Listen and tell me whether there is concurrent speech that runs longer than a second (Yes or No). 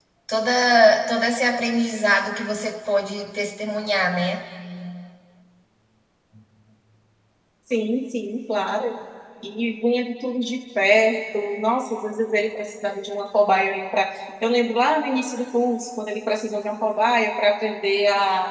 No